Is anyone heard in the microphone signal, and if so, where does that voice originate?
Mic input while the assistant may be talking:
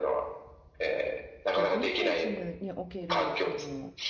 both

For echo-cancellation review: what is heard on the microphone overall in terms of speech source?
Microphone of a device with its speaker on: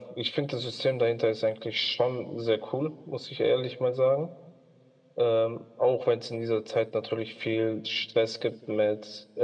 echo only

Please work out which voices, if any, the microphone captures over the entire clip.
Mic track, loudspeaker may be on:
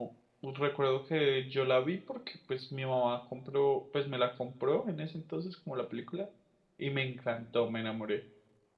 user only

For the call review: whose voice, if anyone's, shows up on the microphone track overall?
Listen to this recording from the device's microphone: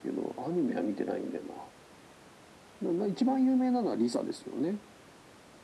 echo only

